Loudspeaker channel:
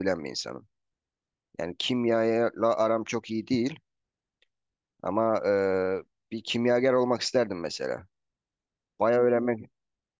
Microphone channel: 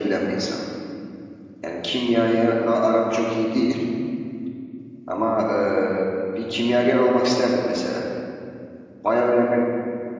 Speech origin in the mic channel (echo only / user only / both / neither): echo only